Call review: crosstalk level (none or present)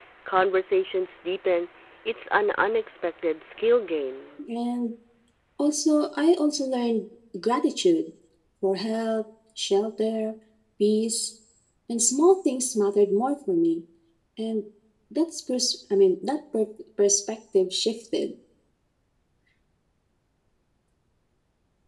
none